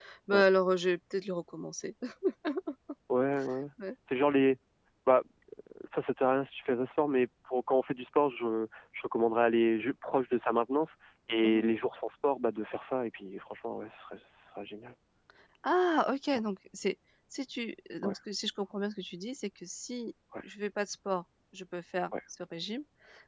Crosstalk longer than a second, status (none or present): none